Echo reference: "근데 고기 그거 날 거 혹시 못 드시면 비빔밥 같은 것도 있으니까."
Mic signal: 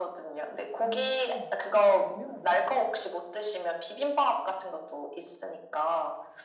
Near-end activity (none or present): present